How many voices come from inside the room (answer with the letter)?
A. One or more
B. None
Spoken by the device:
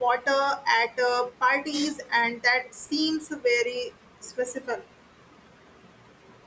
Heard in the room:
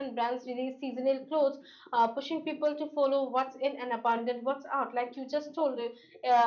A